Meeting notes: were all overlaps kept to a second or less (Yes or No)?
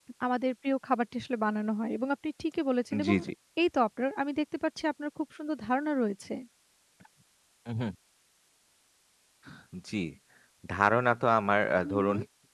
Yes